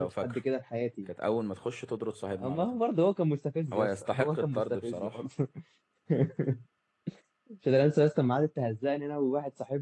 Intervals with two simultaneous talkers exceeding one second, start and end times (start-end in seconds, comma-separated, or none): 3.7-5.2